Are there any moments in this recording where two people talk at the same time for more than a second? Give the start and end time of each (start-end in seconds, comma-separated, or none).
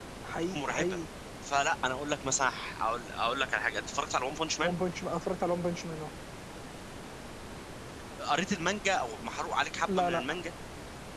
none